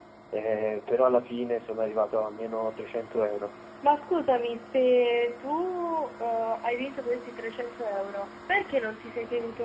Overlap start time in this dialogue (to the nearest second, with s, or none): none